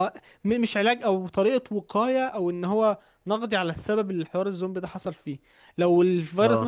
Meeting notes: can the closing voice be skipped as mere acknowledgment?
Yes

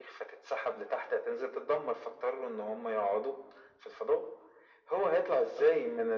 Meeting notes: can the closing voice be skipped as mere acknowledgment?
Yes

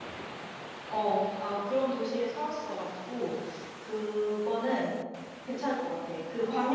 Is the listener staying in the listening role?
Yes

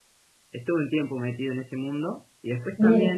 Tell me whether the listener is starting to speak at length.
No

